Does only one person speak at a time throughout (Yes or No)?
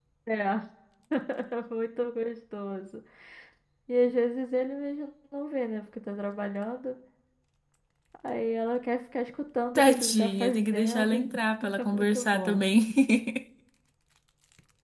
No